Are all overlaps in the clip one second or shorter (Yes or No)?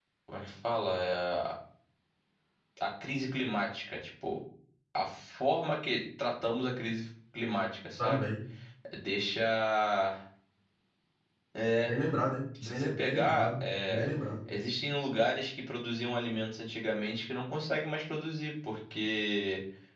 No